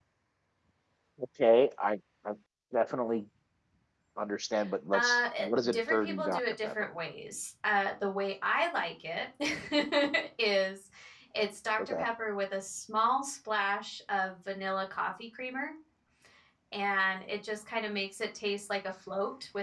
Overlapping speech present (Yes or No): Yes